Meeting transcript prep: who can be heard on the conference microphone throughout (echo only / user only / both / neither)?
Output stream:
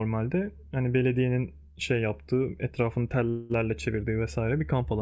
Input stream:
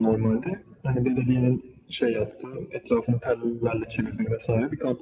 echo only